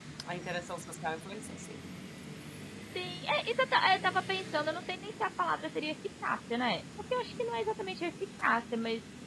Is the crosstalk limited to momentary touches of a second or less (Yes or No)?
Yes